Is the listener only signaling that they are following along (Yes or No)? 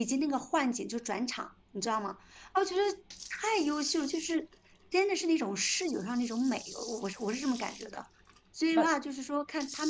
Yes